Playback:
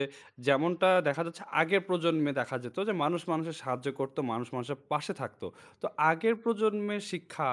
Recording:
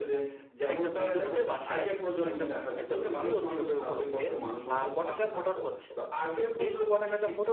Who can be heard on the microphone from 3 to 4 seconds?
both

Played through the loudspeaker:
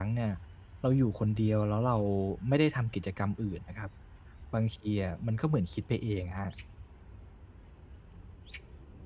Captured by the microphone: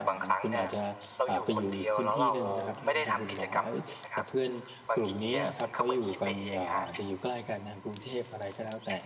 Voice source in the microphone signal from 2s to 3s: both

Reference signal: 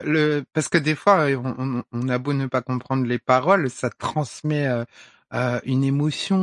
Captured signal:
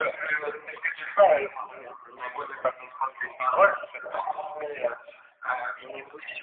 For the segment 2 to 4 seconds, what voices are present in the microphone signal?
echo only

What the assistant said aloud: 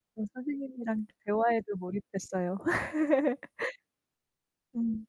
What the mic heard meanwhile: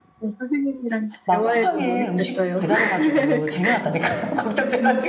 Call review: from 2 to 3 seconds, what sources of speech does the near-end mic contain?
both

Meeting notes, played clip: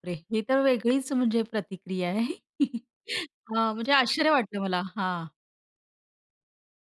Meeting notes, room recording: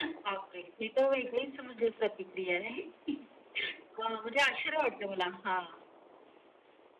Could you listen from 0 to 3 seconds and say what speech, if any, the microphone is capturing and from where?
echo only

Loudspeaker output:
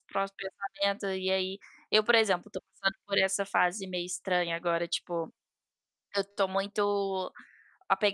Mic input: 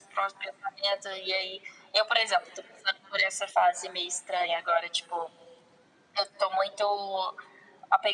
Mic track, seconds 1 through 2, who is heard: echo only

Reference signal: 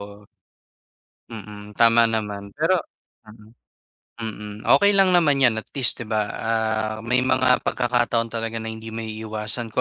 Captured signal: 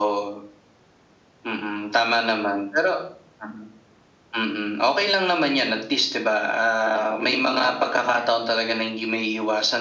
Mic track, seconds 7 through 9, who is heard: echo only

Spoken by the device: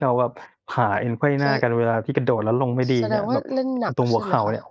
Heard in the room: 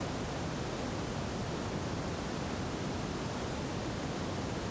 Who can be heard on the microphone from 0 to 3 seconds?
neither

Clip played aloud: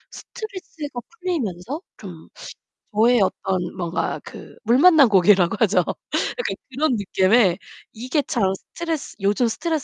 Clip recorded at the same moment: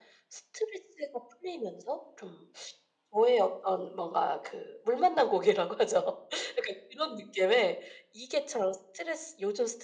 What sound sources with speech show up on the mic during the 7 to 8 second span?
echo only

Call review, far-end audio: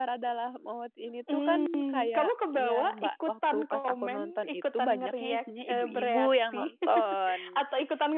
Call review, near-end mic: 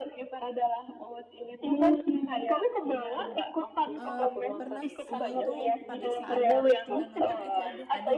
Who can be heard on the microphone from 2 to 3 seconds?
echo only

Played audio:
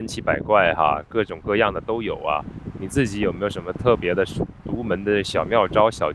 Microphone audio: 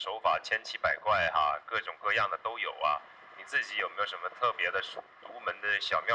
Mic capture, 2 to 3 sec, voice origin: echo only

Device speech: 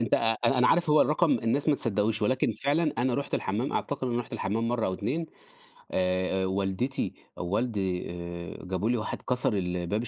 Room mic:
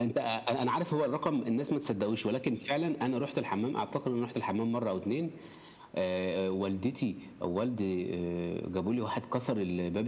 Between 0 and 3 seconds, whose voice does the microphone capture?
echo only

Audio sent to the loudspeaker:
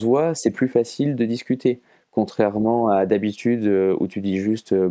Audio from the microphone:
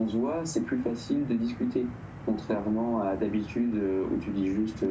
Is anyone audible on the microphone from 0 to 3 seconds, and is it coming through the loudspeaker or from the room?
echo only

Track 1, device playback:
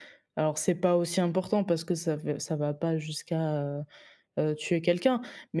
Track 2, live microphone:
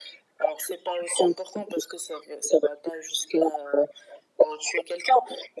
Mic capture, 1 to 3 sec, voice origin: echo only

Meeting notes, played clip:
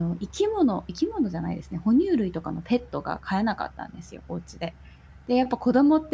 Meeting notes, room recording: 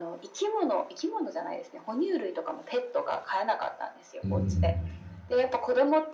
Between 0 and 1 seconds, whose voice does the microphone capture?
echo only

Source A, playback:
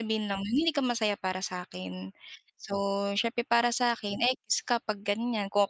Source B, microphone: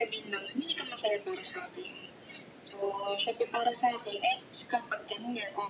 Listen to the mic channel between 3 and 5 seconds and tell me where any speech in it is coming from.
echo only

